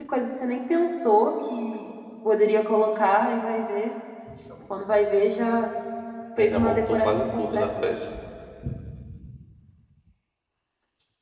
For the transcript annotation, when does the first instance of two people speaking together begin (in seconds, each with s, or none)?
6.4 s